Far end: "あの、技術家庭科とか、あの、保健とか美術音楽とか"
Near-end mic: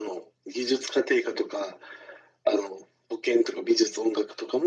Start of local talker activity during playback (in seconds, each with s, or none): none